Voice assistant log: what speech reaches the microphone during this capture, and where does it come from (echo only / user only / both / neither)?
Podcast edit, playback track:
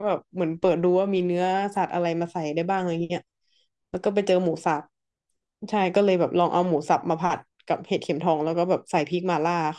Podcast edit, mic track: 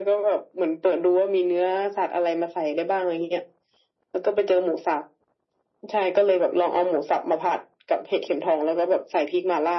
echo only